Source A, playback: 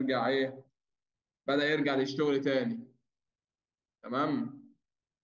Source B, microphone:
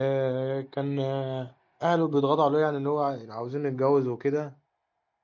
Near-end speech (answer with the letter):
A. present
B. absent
A